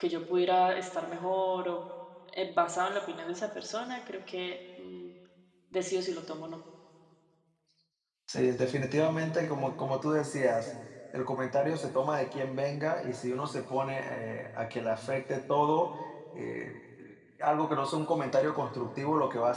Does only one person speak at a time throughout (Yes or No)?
Yes